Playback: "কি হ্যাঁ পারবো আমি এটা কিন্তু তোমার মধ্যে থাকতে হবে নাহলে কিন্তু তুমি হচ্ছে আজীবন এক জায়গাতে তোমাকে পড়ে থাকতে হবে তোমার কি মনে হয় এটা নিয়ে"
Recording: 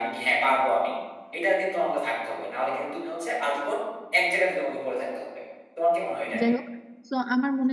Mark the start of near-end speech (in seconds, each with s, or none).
6.4 s